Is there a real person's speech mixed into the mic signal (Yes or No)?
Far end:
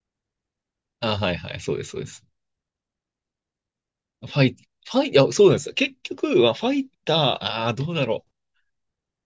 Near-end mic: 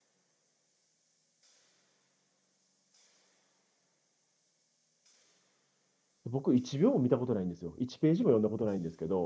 Yes